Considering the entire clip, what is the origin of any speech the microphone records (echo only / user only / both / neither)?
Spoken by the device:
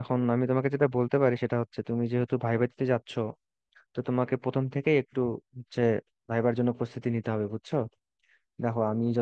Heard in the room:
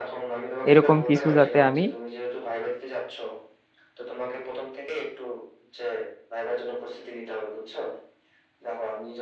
both